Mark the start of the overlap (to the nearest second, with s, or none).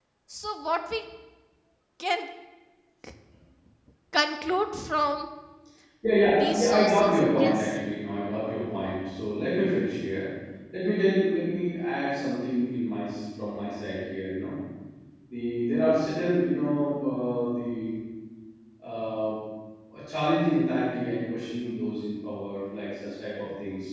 6 s